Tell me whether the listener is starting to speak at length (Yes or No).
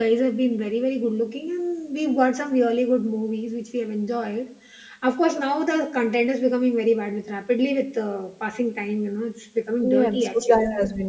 Yes